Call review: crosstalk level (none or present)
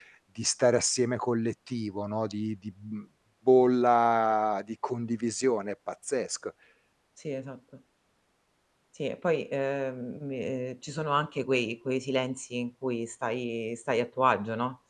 none